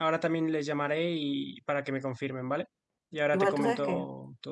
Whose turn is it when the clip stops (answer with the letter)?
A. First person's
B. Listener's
B